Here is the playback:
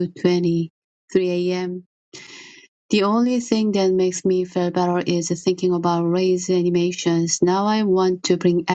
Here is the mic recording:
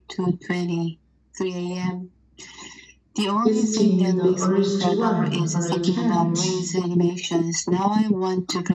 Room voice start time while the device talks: 3.5 s

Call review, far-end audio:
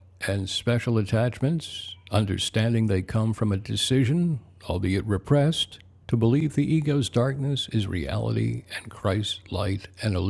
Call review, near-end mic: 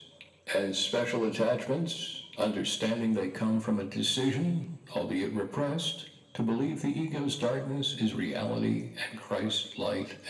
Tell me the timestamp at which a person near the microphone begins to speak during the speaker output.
none

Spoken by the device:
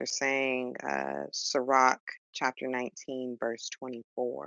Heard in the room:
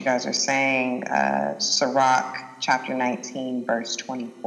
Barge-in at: none

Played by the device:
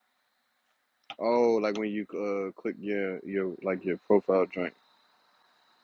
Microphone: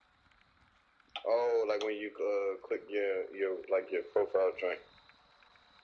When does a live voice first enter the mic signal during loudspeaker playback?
none

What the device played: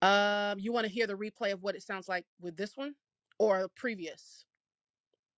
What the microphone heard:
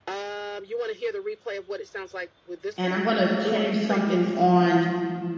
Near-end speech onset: 2.8 s

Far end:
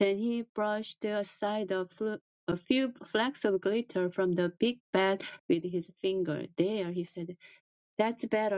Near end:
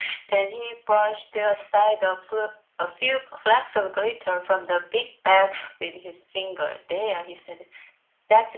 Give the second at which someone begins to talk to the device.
none

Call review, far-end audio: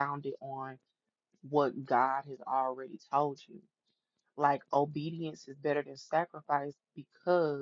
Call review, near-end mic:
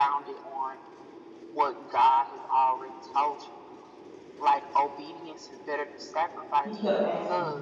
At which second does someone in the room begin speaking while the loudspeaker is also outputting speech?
6.6 s

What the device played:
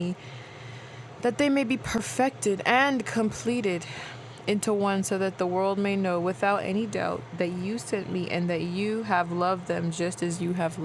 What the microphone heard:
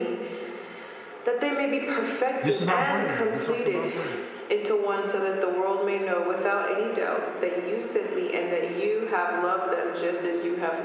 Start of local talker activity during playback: 2.4 s

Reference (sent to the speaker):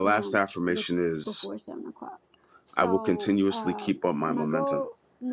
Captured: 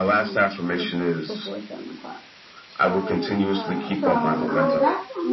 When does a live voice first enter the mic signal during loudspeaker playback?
4.0 s

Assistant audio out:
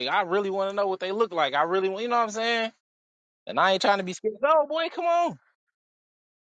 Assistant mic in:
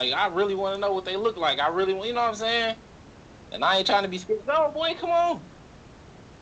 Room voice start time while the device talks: none

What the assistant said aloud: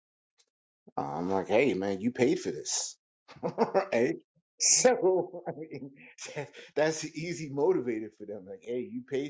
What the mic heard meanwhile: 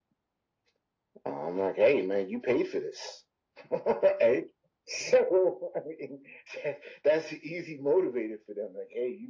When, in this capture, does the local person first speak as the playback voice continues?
none

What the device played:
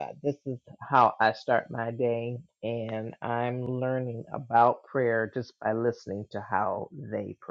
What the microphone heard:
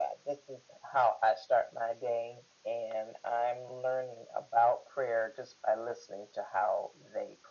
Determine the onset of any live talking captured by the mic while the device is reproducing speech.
none

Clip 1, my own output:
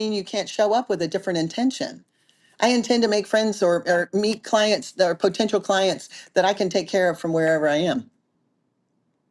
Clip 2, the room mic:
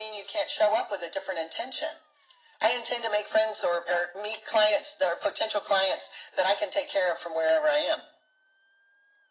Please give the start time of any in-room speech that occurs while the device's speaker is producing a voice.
none

